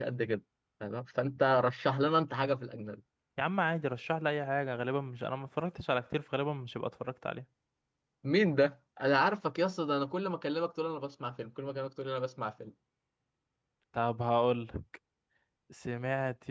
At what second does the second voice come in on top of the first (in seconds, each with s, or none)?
none